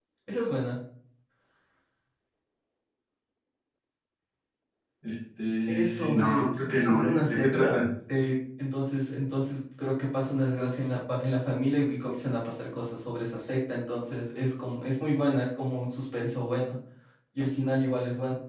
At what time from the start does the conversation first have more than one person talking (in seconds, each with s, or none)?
5.7 s